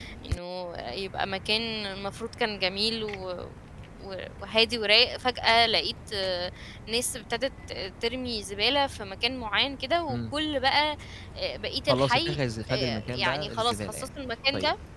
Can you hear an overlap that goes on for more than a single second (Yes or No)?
Yes